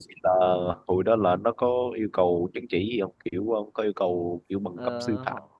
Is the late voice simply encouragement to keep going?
No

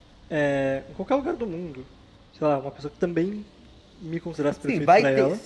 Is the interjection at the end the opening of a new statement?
Yes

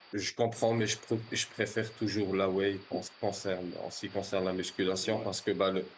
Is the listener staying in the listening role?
Yes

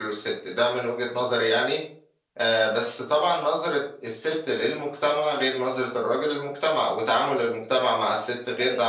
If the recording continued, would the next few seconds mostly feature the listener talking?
Yes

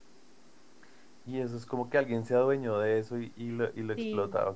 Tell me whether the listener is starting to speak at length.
Yes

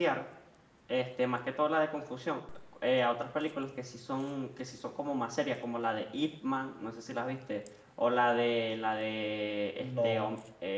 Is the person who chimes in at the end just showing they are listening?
Yes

